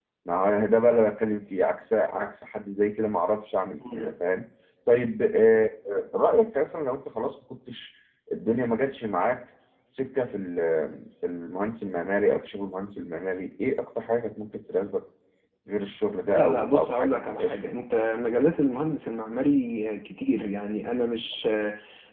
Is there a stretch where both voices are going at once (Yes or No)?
Yes